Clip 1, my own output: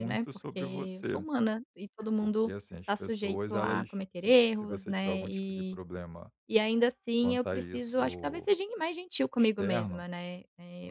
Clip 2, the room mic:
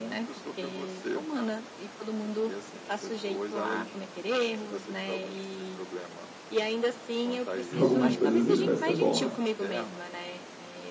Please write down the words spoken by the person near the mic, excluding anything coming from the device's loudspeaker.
Para algumas coisas ele vai ser bom, né?

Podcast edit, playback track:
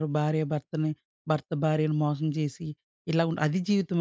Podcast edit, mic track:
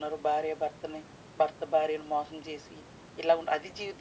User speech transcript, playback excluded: none

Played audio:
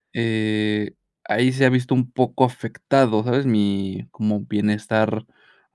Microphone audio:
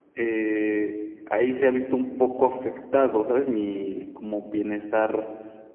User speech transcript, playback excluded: none

